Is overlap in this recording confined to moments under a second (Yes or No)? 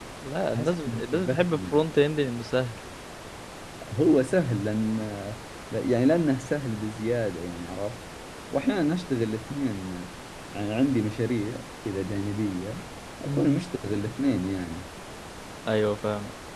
No